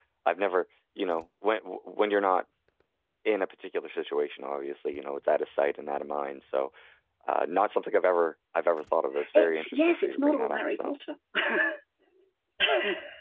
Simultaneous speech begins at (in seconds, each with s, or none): 9.2 s